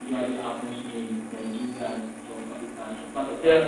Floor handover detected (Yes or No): Yes